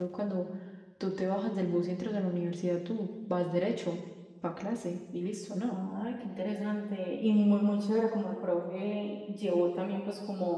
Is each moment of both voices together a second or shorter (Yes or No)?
Yes